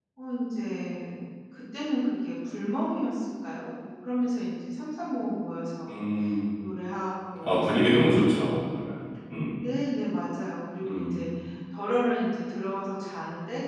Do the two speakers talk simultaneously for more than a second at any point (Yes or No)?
No